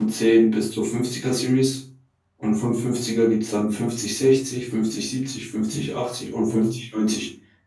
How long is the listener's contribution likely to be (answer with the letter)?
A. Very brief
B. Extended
A